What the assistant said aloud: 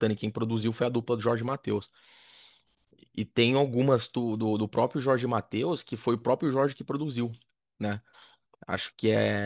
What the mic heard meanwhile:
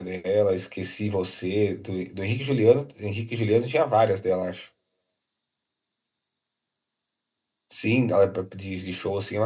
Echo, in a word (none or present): none